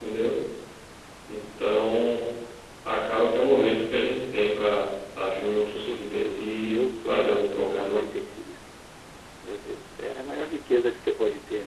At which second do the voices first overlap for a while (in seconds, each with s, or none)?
5.2 s